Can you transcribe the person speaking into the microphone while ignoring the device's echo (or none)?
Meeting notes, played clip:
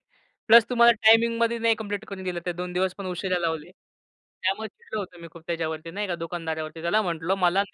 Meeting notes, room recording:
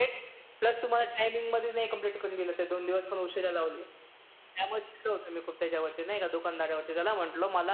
none